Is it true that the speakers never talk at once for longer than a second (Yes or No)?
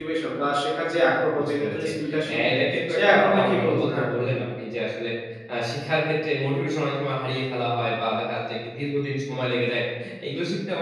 No